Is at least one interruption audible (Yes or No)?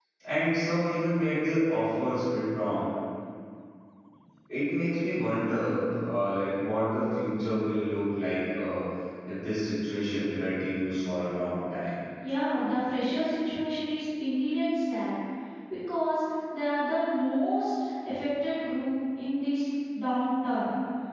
No